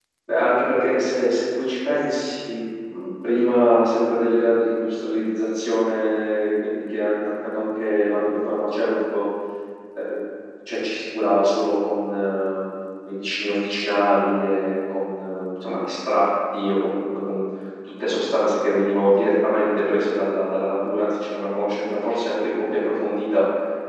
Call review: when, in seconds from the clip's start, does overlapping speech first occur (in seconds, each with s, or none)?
none